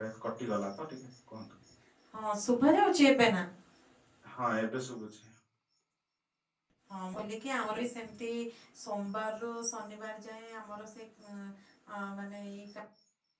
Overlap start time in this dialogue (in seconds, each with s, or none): none